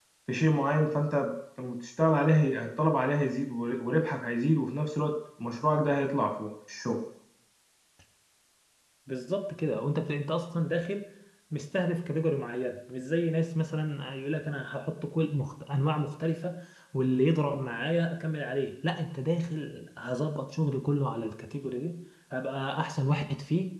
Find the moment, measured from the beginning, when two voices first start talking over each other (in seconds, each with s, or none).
none